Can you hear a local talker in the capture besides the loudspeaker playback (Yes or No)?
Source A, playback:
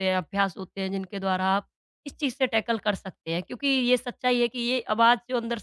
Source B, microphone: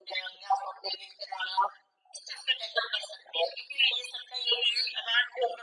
No